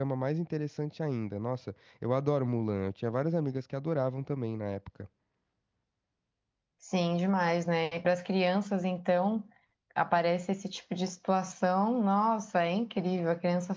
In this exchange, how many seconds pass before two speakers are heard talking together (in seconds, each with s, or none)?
none